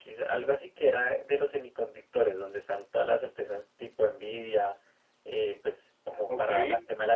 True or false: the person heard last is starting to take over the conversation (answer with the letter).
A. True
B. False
B